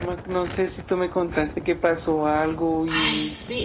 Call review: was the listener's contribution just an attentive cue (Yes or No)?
No